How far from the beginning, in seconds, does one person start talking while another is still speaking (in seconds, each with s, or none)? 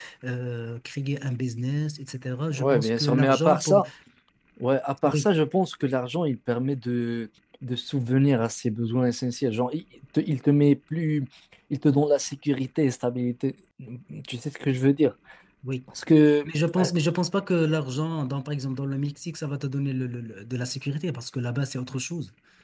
2.5 s